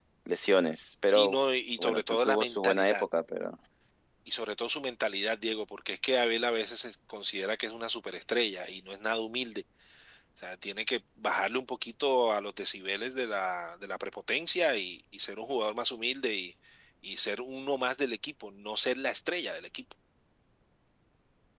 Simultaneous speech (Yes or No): Yes